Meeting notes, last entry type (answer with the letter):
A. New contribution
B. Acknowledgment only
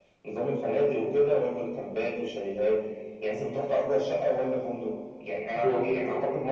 B